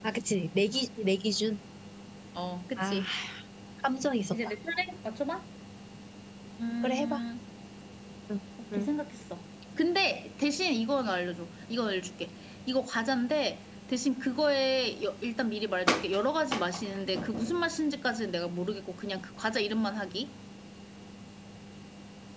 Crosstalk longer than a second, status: none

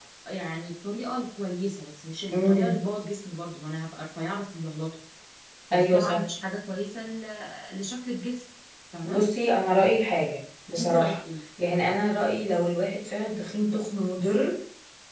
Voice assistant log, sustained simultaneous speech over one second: none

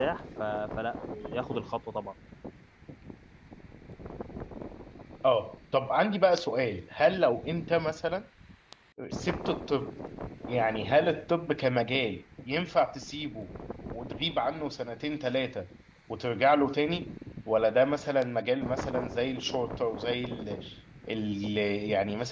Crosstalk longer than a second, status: none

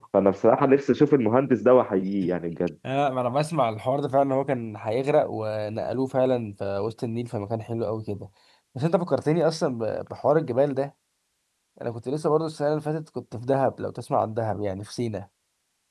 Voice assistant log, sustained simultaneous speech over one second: none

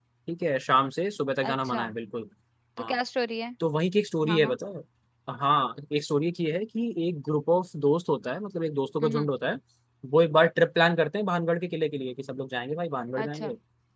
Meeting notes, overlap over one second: none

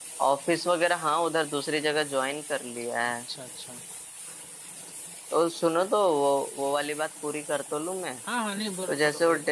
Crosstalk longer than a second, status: none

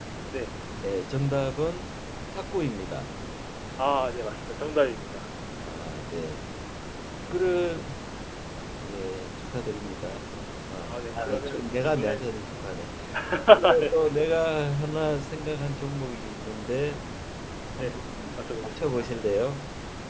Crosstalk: present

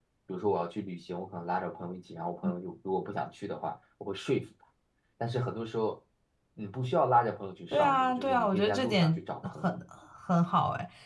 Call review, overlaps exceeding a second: present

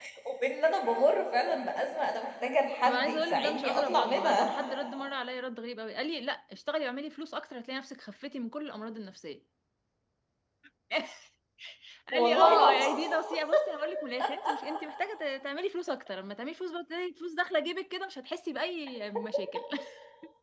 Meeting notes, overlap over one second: present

